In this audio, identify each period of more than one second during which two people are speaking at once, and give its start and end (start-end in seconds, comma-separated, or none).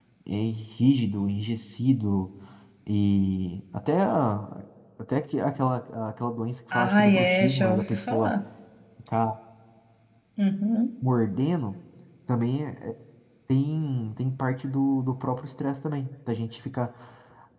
6.7-8.3